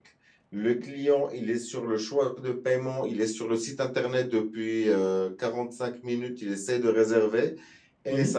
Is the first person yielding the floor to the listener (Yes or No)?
No